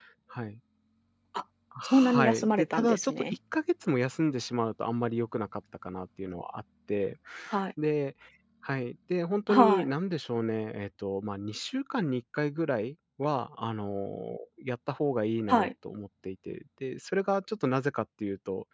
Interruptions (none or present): present